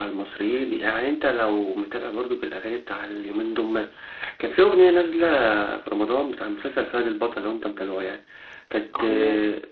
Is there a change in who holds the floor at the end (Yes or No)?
No